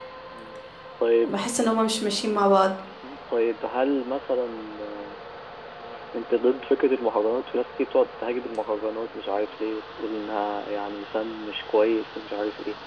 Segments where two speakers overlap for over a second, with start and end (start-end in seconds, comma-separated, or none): none